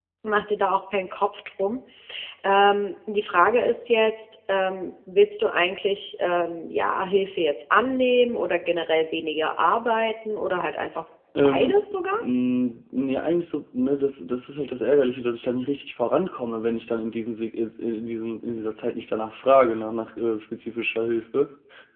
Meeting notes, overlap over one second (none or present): none